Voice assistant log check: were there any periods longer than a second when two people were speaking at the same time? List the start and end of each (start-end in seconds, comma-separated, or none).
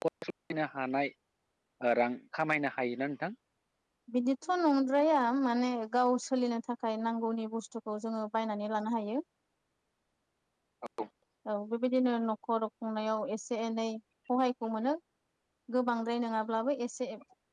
none